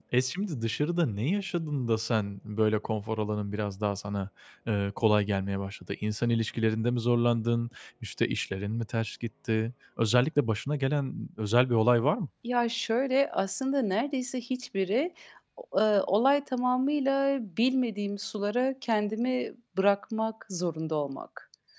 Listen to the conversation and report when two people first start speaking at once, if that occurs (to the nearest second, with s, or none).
none